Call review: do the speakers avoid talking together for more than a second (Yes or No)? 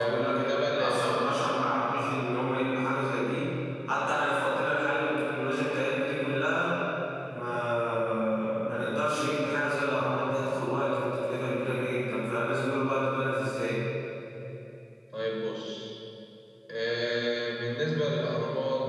No